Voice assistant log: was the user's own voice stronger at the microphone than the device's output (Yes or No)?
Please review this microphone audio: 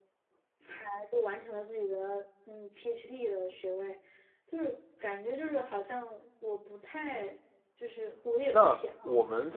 Yes